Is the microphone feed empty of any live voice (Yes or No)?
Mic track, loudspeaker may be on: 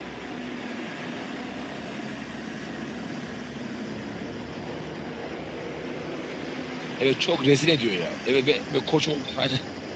No